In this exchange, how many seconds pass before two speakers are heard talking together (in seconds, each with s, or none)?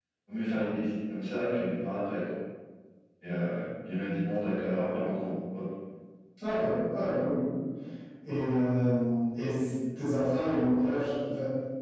none